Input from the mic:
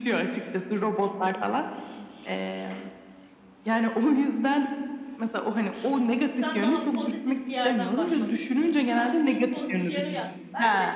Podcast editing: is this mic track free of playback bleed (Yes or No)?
No